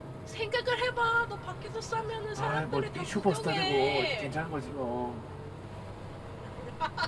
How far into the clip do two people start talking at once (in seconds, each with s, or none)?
2.4 s